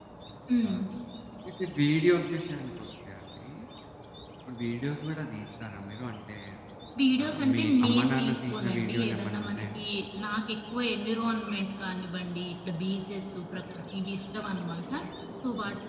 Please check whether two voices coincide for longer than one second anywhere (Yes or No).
Yes